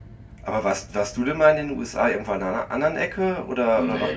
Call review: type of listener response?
taking over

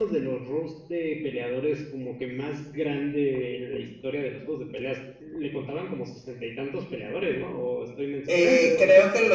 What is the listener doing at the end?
taking over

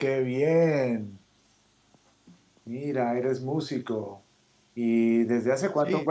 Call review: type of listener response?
listening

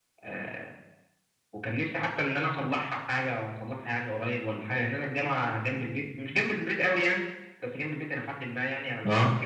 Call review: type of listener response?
listening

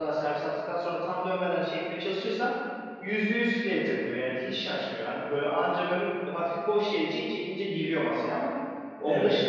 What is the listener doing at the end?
listening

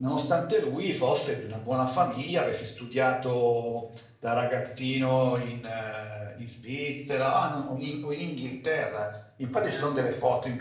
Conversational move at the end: listening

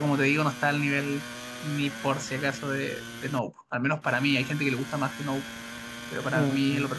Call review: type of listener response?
taking over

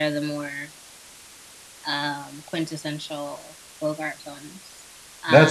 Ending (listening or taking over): taking over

